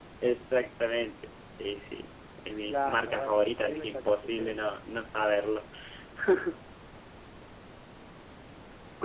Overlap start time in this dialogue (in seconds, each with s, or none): 2.7 s